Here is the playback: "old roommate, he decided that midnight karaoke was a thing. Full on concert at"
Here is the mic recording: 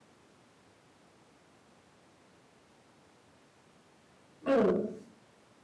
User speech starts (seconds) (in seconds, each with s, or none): 4.5 s